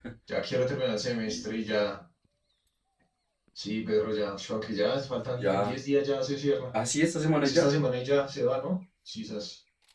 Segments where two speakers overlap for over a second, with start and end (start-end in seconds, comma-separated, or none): none